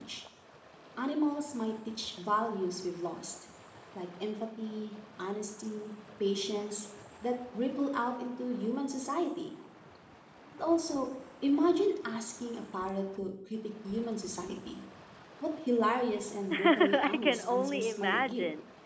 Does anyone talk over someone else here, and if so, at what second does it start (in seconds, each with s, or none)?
16.5 s